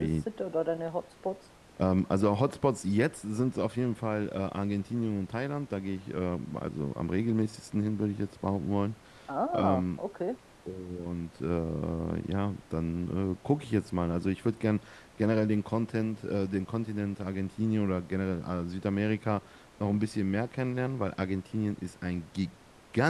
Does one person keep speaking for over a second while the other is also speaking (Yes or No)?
No